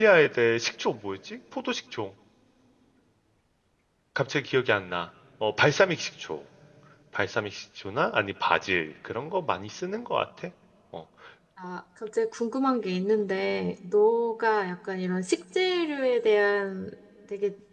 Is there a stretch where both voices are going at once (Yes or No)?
No